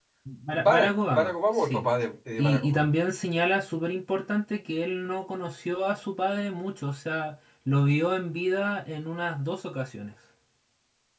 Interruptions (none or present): present